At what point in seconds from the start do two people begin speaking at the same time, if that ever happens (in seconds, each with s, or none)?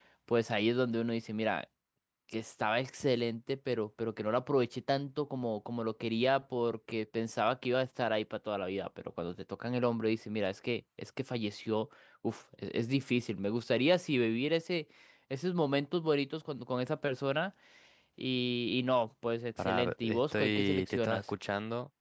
19.6 s